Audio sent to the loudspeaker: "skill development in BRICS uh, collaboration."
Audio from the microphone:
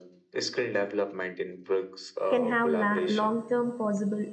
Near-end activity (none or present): present